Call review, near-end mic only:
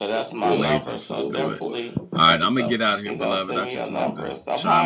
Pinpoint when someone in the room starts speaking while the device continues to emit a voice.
0.5 s

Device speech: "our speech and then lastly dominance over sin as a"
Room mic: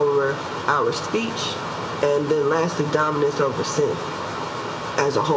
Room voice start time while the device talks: none

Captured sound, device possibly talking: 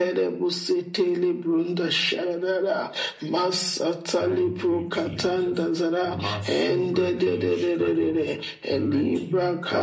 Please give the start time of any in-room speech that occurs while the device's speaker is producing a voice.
4.1 s

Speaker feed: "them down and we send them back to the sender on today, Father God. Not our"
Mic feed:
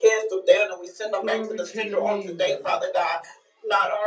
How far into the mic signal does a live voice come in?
1.2 s

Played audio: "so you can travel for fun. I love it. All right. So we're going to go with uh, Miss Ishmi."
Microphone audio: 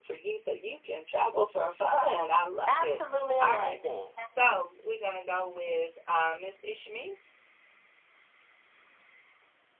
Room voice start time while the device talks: 2.6 s

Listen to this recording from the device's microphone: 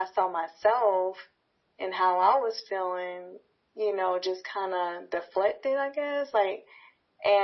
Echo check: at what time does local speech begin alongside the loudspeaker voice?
none

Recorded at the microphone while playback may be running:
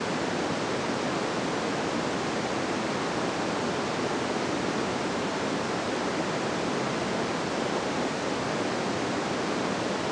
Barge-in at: none

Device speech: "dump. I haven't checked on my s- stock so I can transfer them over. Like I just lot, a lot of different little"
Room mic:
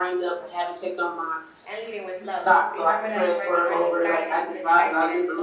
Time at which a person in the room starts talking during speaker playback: 1.7 s

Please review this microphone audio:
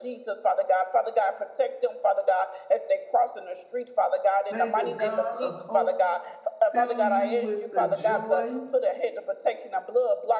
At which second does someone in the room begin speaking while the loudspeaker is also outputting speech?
4.5 s

